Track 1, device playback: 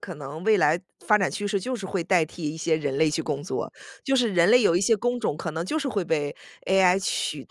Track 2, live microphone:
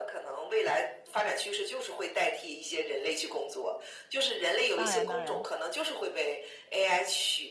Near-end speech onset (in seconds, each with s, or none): 4.7 s